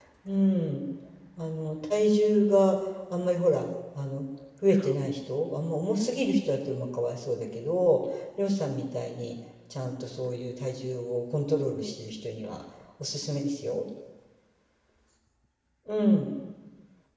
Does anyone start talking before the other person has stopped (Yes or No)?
No